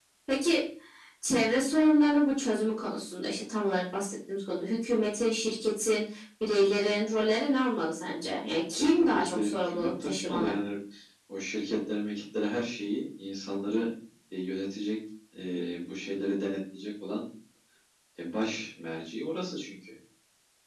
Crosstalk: present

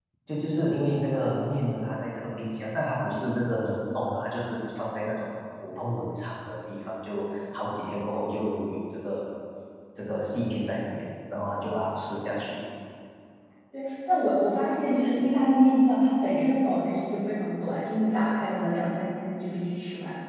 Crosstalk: none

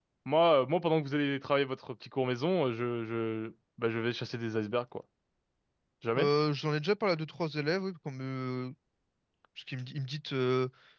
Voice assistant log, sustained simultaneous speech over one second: none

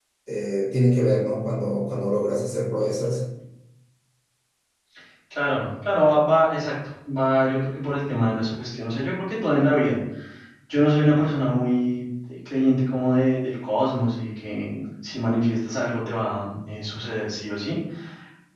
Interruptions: none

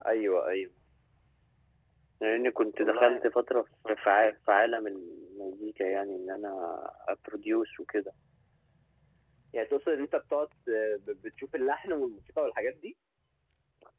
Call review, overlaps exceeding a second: none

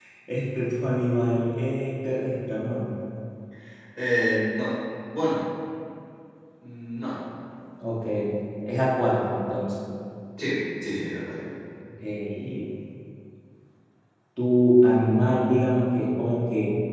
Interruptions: none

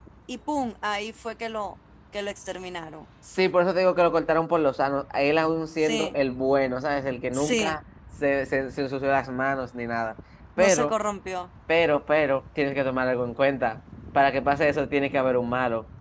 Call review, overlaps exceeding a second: none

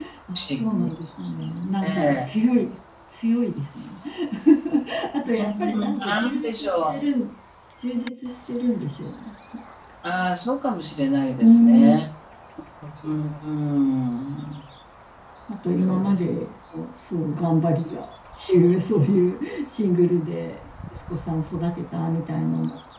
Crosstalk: present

